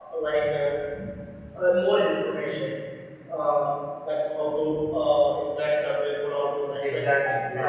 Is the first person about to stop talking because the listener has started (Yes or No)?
No